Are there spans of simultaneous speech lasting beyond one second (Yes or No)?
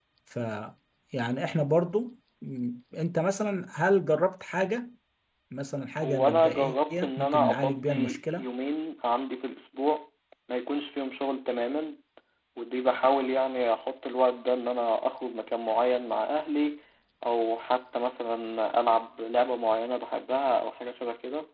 Yes